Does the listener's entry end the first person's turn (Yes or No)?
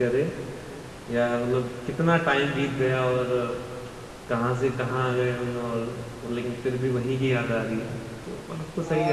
Yes